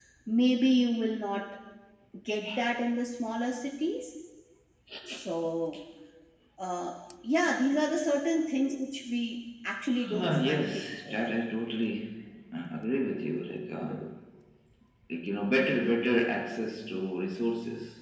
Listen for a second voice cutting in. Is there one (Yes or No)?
Yes